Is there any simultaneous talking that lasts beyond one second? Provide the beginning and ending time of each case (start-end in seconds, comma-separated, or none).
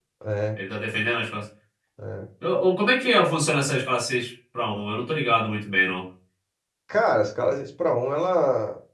none